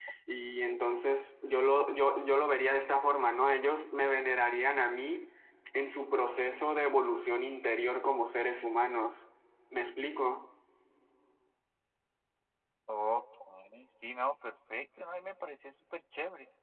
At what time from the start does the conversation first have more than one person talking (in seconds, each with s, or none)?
none